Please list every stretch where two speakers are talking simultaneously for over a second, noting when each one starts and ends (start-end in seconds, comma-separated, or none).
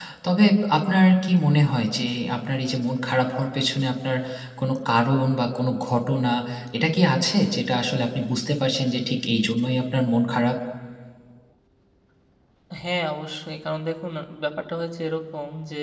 none